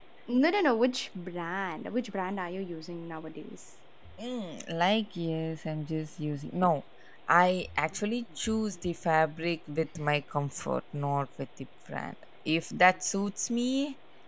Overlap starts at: none

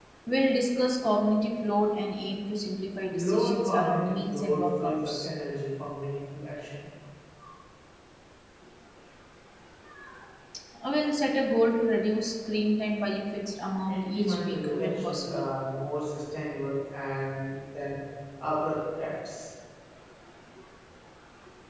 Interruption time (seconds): 3.1 s

